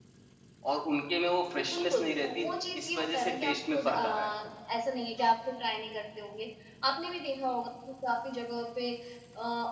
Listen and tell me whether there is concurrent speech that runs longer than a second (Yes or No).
Yes